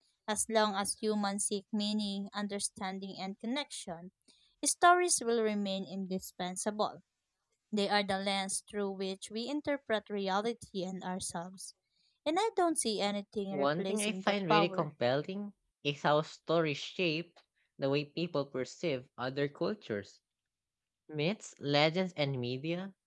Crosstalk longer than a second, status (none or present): present